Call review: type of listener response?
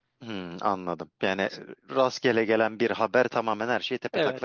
taking over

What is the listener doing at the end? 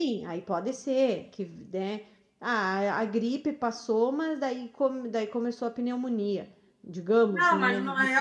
taking over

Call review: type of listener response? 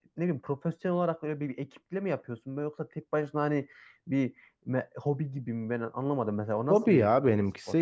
taking over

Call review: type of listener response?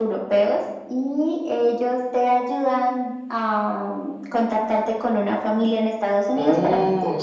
taking over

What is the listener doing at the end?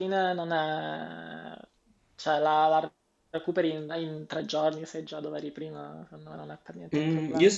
taking over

